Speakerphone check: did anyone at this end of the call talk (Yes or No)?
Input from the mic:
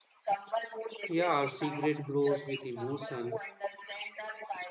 Yes